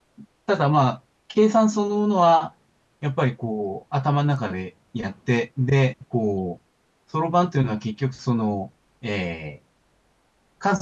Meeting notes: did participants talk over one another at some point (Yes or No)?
No